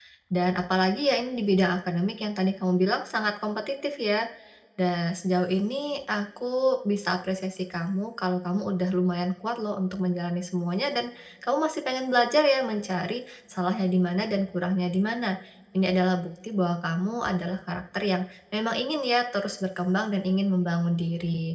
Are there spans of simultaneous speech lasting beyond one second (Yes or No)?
No